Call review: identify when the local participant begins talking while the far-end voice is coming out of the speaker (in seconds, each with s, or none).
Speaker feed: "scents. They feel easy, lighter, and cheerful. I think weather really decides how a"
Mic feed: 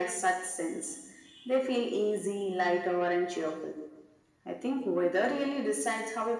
none